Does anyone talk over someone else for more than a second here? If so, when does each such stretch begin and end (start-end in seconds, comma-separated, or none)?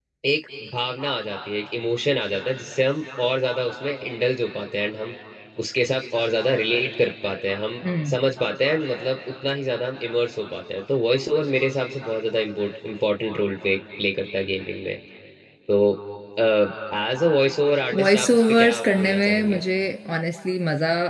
17.9-19.6